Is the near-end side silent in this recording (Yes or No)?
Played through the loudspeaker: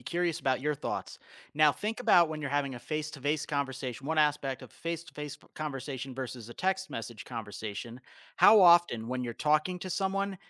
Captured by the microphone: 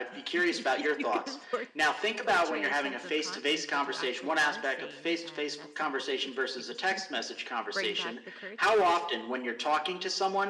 No